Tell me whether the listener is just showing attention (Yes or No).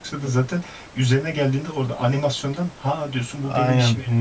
No